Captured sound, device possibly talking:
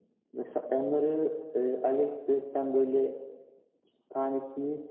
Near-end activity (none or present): none